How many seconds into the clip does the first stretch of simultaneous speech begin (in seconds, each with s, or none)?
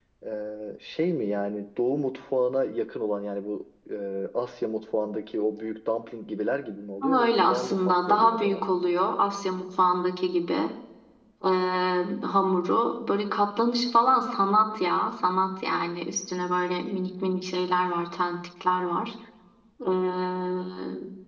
7.0 s